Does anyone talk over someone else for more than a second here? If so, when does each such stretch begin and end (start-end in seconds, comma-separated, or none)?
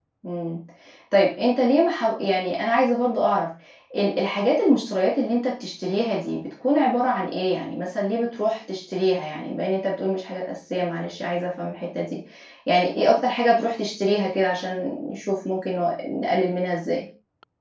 none